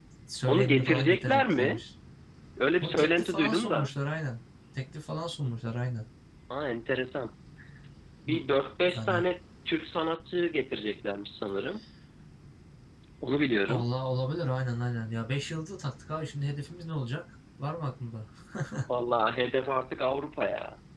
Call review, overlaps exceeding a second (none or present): present